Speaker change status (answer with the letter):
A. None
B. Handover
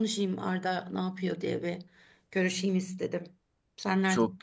B